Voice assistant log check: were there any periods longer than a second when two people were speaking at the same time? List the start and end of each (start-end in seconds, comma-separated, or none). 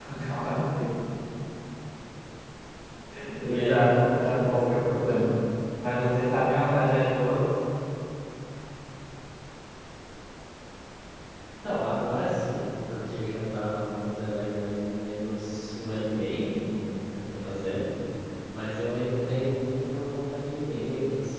3.4-5.0